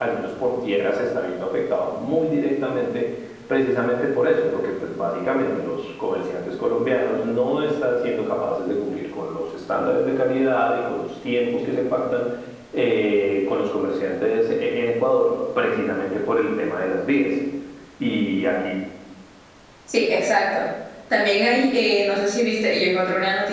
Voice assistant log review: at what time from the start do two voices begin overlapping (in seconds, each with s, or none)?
none